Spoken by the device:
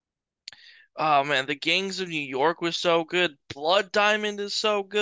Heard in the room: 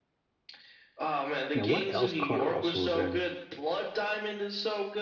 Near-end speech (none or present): present